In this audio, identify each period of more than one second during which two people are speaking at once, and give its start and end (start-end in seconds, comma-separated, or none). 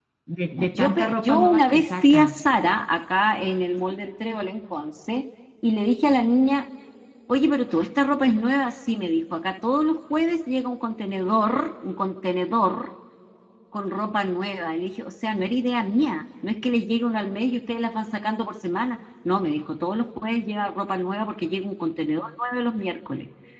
0.7-2.4